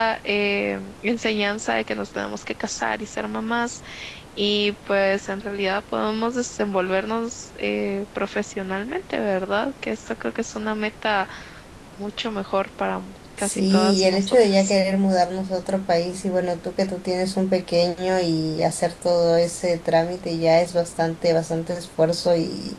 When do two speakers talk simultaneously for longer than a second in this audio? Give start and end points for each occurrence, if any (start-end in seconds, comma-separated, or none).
13.4-14.7